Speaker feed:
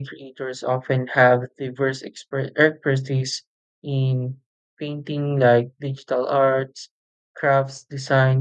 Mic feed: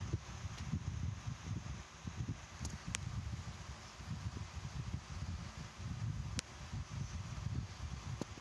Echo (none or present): none